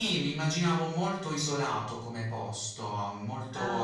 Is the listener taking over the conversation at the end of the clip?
No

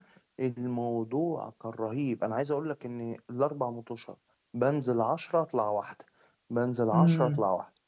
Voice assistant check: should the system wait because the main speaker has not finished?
Yes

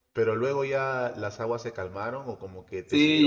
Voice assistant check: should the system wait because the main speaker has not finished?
No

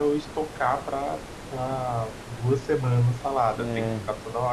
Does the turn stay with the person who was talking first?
Yes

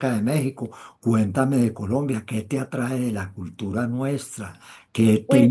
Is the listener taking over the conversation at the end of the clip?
No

